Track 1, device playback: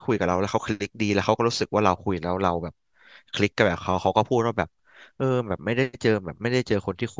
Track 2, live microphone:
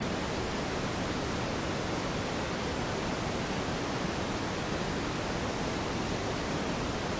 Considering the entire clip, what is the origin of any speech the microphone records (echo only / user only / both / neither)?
neither